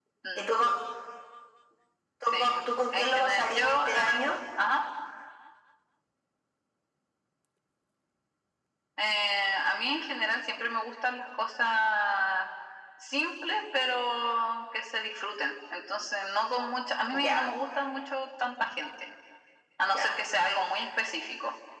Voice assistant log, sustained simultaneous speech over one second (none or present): present